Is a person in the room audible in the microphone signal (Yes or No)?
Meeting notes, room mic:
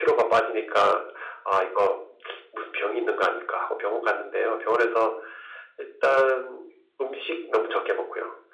No